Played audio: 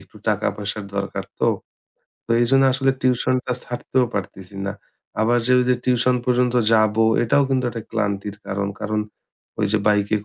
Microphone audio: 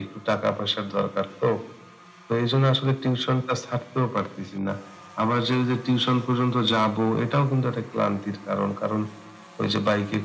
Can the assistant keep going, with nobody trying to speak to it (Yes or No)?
Yes